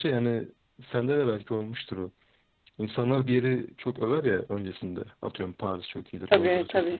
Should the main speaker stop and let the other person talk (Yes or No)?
No